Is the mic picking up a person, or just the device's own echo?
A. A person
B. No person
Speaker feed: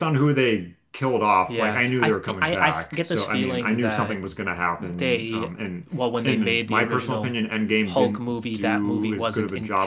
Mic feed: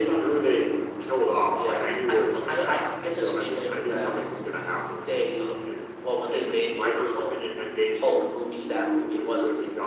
B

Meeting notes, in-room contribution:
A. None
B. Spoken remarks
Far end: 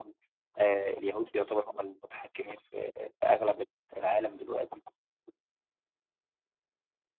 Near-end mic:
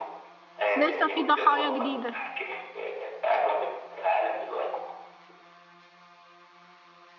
B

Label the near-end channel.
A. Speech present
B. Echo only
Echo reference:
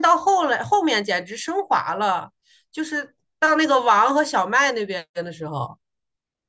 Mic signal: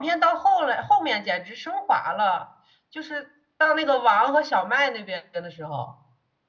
B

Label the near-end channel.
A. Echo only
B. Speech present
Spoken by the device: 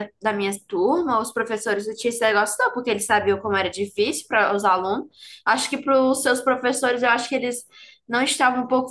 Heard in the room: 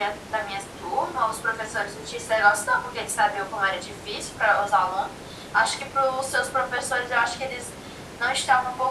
A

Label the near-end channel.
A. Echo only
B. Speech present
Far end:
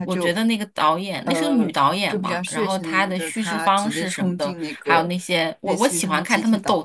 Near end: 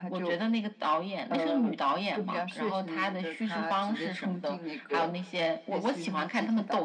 A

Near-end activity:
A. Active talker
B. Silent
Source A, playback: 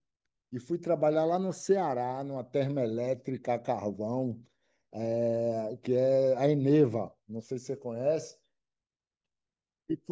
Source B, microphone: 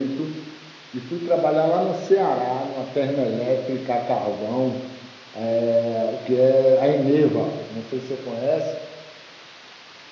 B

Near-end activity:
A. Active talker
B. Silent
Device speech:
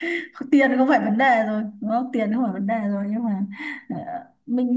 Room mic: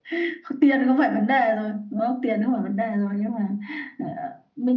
B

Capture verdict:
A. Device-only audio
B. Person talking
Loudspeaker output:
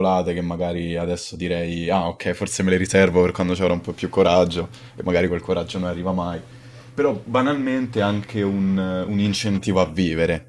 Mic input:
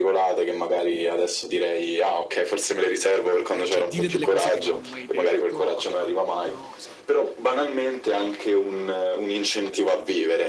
B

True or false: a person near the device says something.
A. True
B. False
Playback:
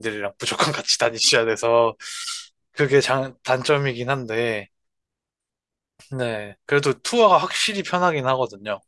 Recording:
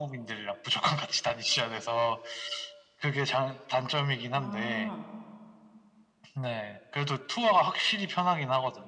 A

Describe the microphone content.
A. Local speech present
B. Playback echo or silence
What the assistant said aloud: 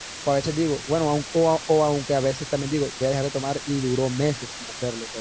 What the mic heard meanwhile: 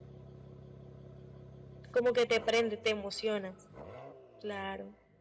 A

